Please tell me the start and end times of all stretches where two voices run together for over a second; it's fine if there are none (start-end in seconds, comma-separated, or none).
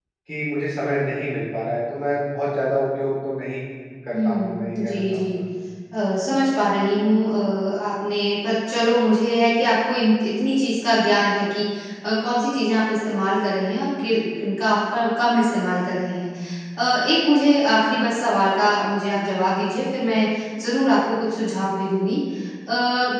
4.1-5.4